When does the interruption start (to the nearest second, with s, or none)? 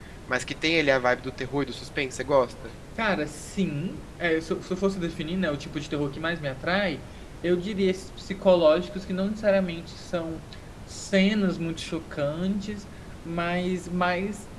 none